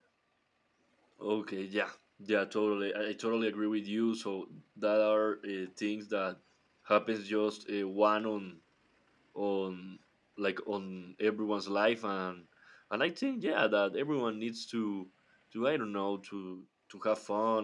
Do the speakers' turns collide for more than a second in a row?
No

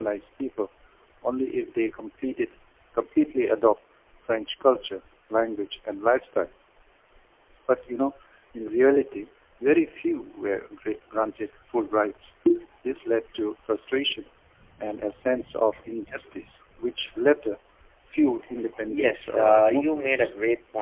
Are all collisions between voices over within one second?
No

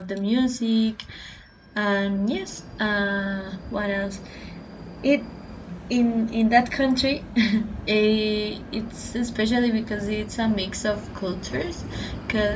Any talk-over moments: No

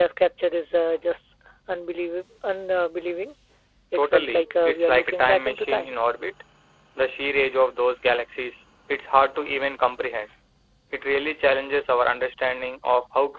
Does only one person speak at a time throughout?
No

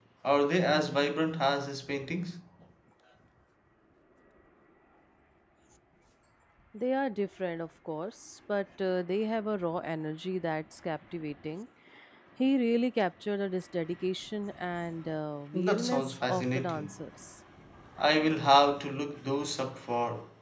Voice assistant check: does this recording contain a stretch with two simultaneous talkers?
Yes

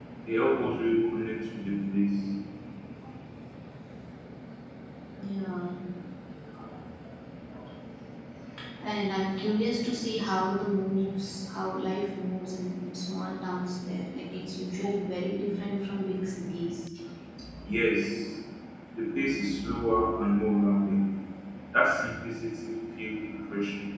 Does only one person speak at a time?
Yes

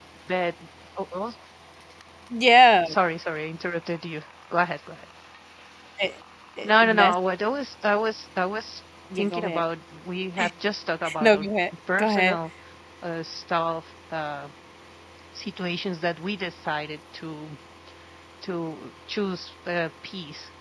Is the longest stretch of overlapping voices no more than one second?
Yes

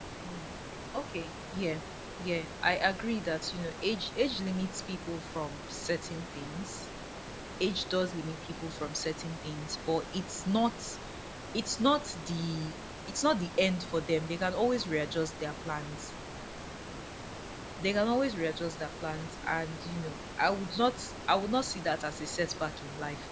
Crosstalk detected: No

